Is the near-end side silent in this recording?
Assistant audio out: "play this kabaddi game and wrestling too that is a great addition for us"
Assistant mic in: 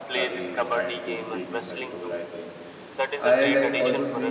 No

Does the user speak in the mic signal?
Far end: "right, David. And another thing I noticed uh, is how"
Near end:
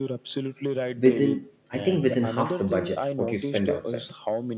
Yes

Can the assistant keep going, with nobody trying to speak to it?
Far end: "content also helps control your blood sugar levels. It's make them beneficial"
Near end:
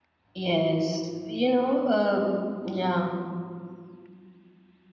No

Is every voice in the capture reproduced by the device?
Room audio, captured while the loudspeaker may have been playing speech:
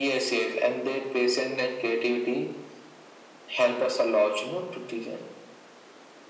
Yes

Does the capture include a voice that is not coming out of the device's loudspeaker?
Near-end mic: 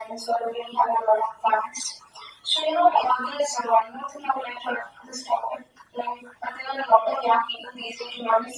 No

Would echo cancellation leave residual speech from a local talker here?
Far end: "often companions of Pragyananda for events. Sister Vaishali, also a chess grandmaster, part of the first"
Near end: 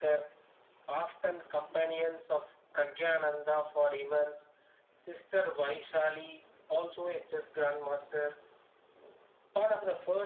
No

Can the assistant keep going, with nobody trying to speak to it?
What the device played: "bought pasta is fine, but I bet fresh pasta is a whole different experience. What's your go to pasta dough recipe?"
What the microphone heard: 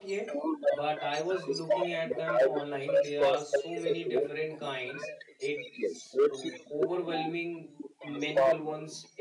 No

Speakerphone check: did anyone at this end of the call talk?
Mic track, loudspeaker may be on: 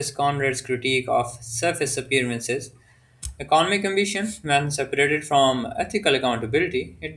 Yes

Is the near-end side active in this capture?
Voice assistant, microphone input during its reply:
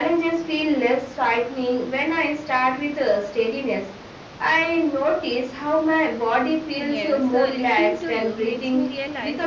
Yes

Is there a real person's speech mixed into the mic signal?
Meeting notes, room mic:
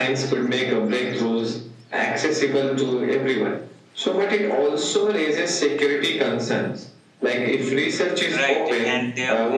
Yes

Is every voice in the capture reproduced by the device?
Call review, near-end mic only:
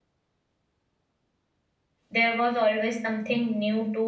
No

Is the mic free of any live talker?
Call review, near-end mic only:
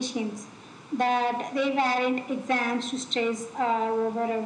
Yes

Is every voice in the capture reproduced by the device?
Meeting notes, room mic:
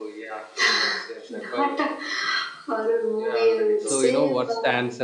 No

